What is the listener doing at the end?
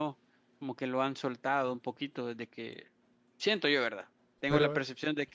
listening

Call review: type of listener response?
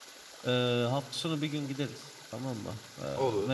listening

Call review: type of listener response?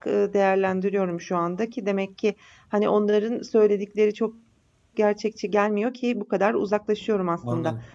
listening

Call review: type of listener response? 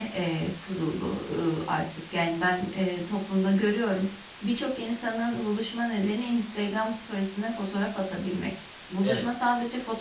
listening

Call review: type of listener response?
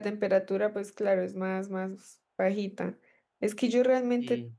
listening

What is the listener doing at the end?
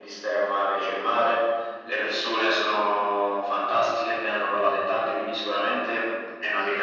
listening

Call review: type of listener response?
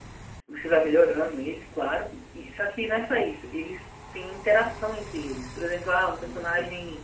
listening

